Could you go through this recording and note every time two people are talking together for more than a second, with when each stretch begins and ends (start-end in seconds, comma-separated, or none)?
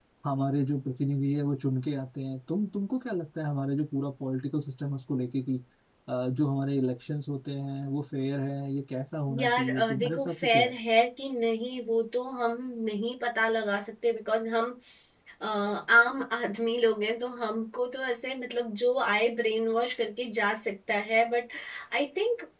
9.4-10.7